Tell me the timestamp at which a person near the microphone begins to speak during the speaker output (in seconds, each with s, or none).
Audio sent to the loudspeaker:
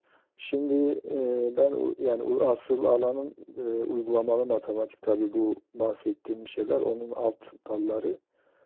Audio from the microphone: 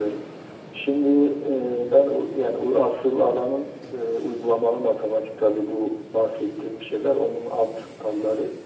none